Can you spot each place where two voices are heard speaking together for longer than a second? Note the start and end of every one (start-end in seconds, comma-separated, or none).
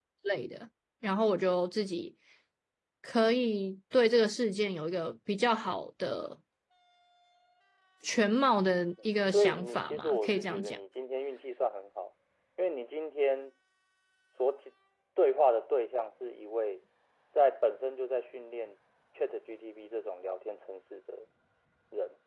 9.3-10.8